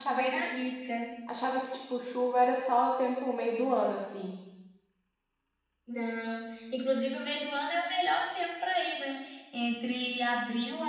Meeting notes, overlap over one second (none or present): none